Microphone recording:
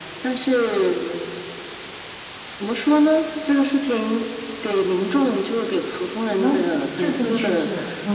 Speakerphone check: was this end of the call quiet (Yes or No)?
No